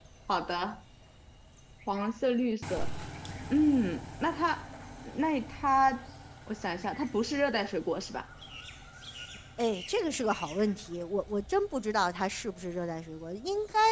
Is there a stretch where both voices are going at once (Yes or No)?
No